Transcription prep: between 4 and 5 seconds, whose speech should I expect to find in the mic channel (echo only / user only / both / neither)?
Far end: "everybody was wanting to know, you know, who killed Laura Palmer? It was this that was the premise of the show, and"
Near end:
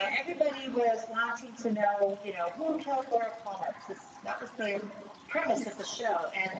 echo only